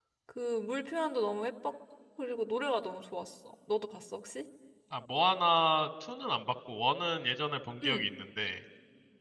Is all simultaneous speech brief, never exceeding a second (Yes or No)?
Yes